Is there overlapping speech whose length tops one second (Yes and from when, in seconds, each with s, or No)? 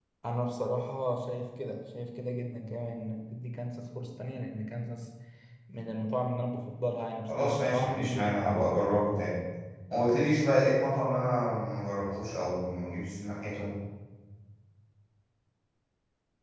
Yes, from 7.3 s